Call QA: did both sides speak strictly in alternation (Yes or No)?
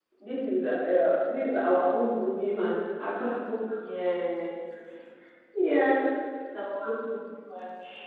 Yes